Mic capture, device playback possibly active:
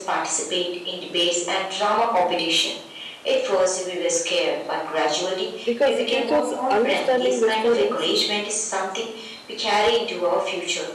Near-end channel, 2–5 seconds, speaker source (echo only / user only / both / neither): echo only